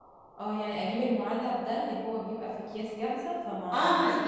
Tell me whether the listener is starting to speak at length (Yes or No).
Yes